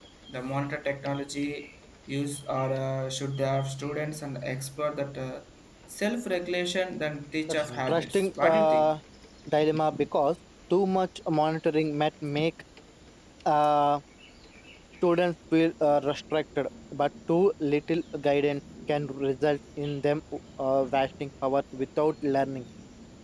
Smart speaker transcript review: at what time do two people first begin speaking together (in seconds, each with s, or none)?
7.5 s